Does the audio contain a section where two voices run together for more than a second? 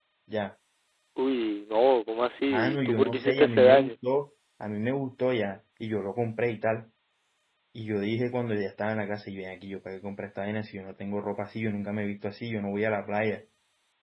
Yes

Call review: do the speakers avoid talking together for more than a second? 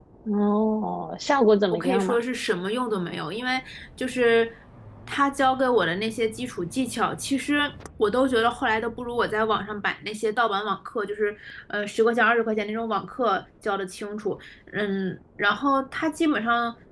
Yes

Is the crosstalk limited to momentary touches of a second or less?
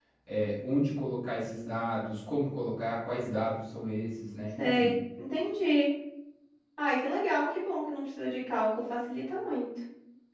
Yes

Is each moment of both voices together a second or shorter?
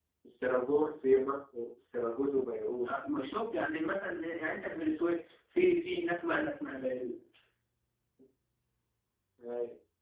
Yes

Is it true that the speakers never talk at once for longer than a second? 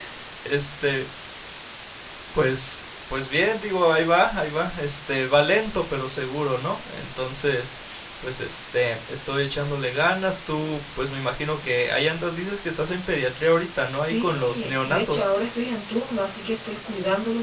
No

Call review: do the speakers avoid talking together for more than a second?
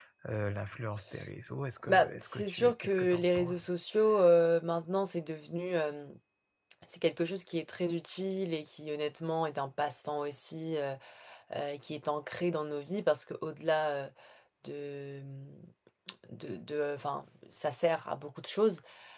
No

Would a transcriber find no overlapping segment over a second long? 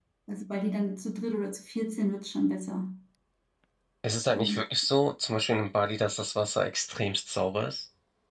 Yes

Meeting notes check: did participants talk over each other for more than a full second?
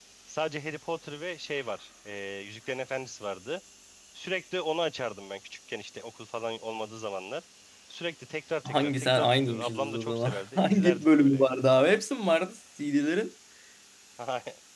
Yes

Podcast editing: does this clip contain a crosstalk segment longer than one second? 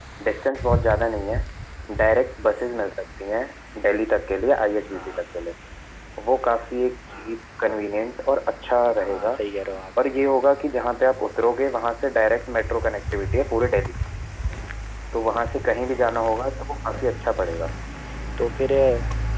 No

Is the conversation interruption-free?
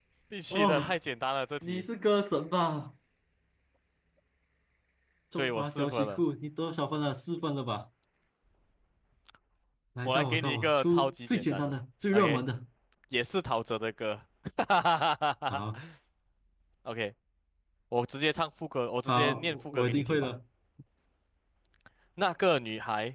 No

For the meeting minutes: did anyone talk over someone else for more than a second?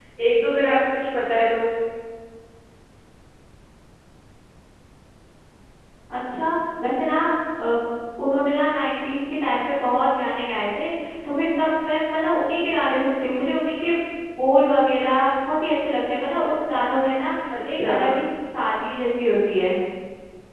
No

